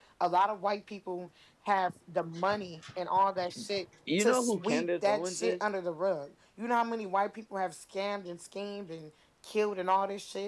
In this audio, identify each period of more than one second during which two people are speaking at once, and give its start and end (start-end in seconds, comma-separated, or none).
4.2-5.6